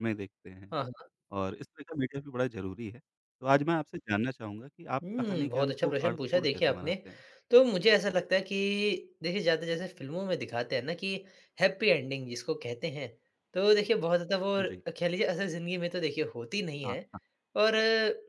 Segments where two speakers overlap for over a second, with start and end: 5.2-6.9

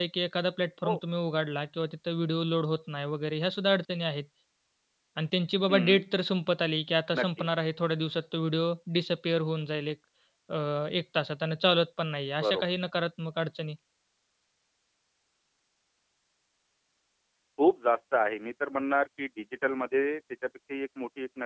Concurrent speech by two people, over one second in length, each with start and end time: none

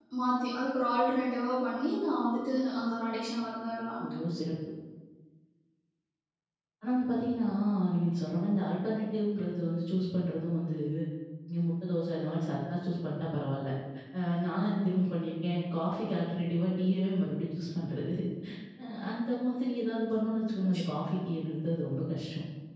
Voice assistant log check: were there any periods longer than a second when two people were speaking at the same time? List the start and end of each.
none

